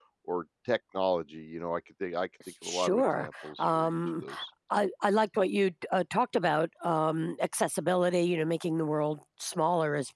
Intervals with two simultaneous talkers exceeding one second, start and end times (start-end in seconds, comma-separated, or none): 2.6-4.2